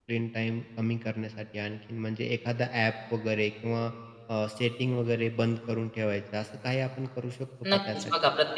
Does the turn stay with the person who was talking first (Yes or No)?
No